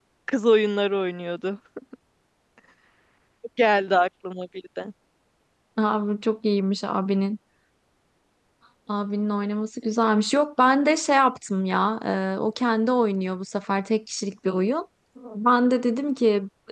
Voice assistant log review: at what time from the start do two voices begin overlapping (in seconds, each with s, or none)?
none